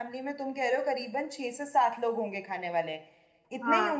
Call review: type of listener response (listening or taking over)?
taking over